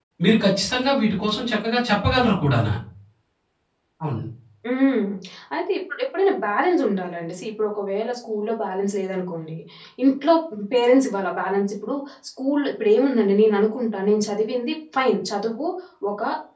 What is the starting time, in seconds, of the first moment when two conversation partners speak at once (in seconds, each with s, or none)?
none